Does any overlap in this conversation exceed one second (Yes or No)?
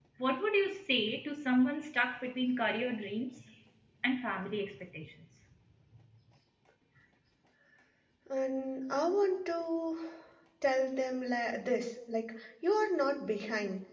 No